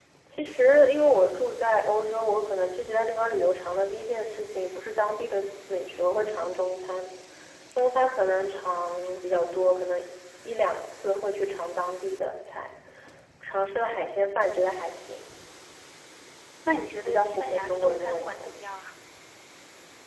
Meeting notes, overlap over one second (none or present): present